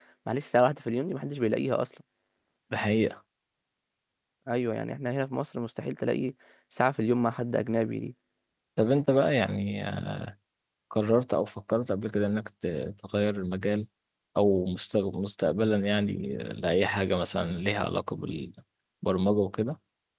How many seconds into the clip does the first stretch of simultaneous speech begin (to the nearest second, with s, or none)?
none